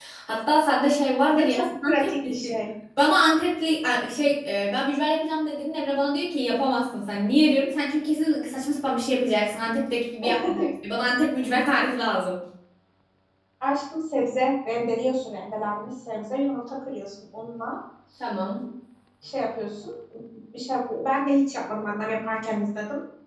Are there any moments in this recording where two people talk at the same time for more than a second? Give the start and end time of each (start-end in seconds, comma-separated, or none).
1.3-2.5